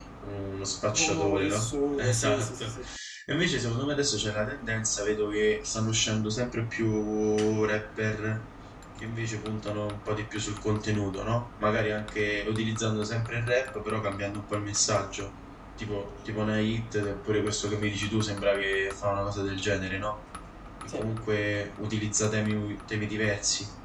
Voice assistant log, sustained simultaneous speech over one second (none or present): present